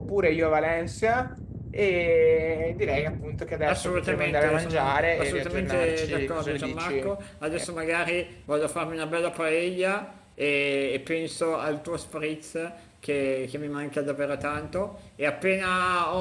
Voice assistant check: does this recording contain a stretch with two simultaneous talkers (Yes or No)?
Yes